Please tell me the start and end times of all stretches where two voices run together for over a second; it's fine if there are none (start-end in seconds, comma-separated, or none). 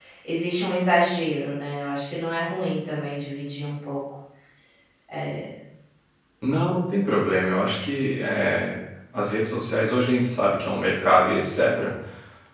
none